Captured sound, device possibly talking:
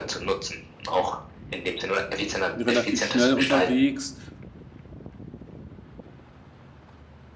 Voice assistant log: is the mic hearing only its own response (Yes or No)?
No